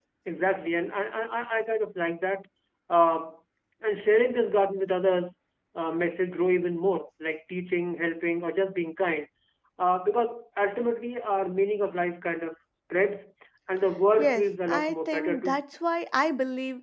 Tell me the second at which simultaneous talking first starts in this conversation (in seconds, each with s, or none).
14.2 s